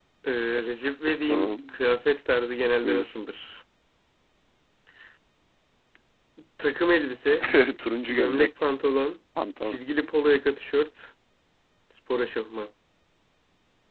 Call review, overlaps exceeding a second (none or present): none